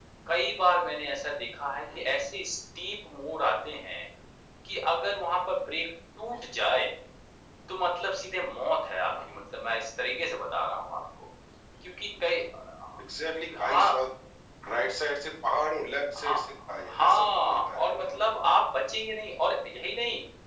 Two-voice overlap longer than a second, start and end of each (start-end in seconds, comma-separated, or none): 17.0-18.4